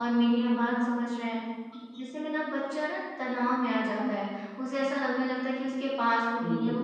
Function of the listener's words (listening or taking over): listening